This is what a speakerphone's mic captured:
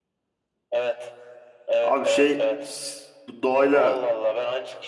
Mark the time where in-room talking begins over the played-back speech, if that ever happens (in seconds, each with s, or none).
1.8 s